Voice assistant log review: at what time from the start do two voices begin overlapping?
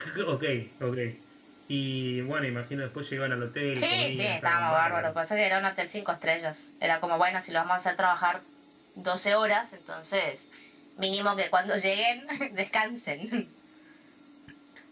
3.7 s

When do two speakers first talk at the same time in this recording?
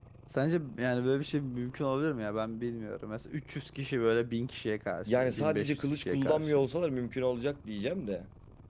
5.1 s

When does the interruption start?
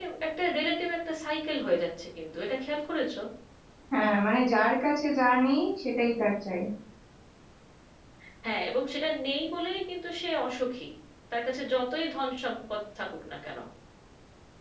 none

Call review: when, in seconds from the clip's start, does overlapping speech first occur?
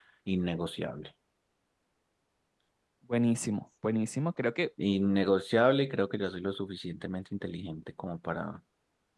none

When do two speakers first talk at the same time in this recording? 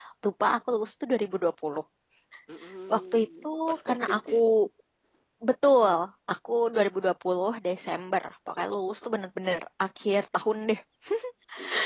2.9 s

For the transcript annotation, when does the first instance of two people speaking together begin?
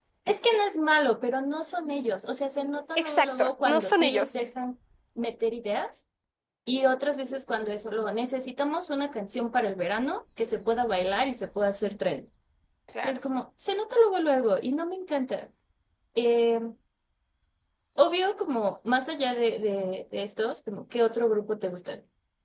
3.0 s

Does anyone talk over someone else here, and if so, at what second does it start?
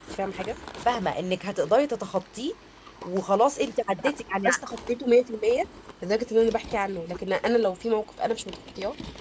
none

